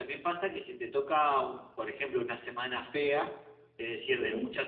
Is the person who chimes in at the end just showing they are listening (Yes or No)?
Yes